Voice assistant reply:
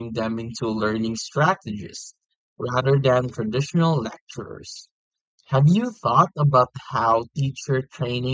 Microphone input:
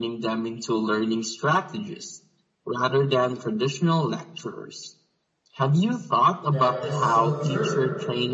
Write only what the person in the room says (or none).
That is so true.